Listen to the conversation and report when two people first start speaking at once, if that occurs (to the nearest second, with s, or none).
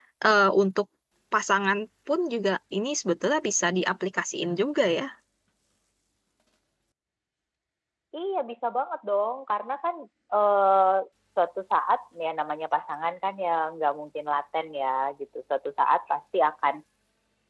none